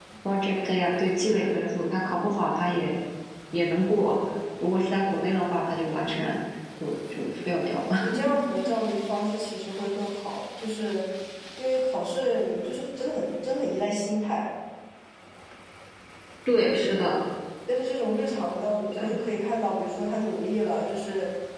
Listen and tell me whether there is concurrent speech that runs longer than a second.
No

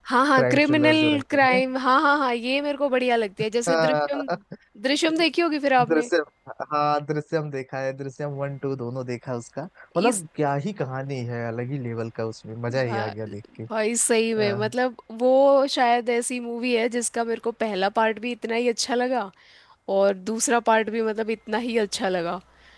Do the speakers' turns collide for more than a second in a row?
Yes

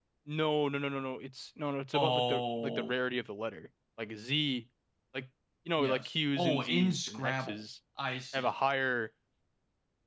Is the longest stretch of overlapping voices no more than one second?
No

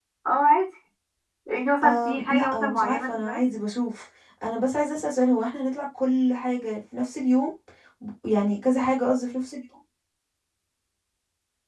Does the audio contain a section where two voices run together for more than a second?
Yes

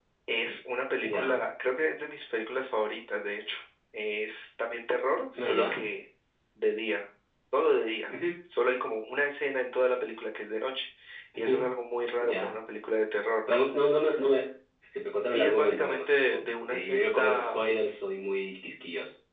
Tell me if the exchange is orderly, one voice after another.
No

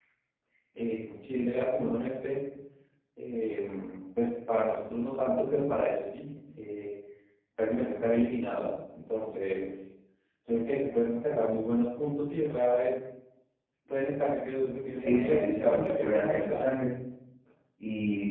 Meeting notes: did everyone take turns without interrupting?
No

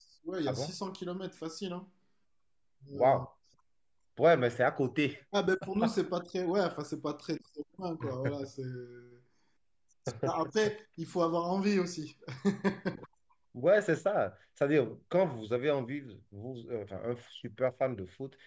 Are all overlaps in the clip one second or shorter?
Yes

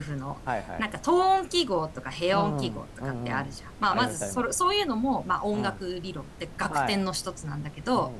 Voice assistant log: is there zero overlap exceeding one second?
No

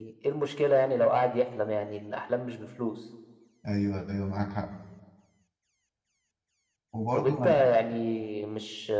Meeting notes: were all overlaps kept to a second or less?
Yes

